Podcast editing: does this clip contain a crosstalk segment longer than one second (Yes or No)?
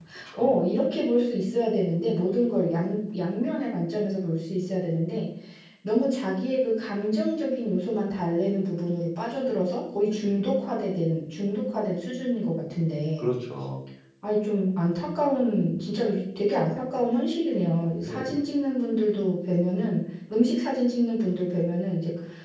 No